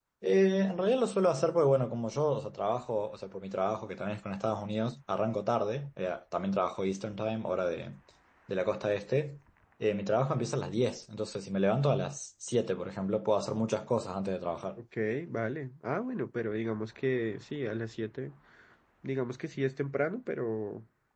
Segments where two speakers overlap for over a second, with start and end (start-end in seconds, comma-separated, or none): none